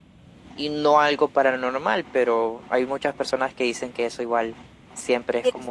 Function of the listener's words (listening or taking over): taking over